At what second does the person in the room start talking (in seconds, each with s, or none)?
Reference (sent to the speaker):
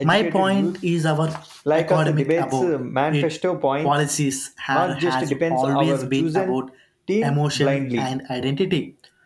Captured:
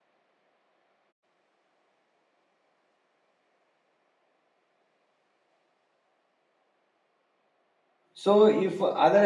8.1 s